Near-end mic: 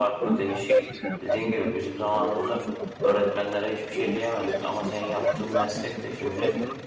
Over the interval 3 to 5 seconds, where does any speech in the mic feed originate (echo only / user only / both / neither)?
both